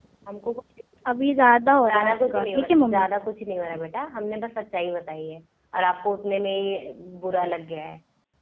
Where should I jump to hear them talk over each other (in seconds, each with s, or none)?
1.8 s